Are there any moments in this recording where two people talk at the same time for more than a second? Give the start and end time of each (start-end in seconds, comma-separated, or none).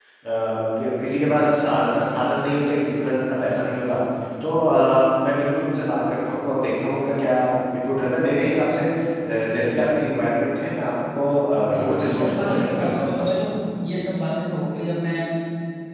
11.7-13.3